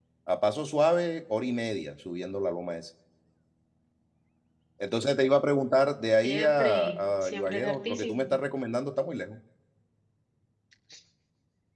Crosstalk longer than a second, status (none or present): present